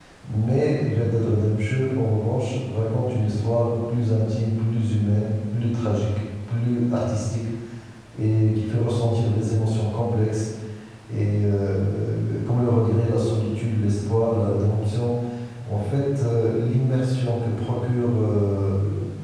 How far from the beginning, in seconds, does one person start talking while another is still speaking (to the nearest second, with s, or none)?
none